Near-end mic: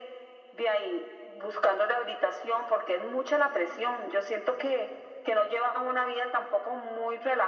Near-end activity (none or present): none